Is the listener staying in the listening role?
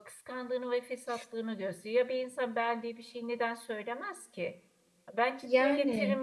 Yes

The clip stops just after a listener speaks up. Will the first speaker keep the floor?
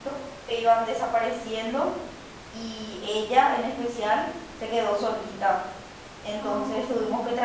Yes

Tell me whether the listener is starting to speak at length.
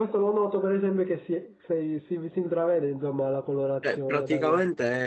Yes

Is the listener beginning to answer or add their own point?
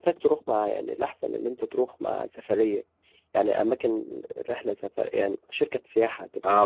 Yes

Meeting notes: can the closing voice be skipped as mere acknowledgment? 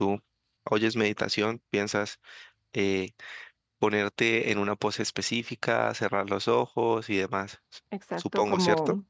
No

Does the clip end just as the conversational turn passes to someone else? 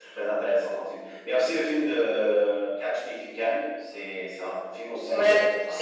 Yes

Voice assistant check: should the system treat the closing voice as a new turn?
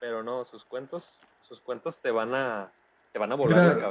Yes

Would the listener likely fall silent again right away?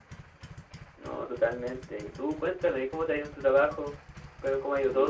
Yes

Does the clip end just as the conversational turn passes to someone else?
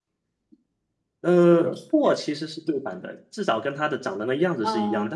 No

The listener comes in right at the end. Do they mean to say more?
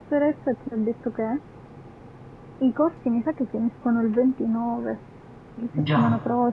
No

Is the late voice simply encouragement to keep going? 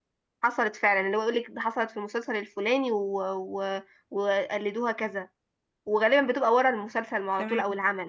Yes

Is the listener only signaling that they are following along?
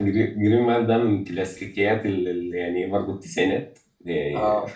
Yes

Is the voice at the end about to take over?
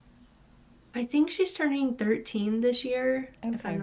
No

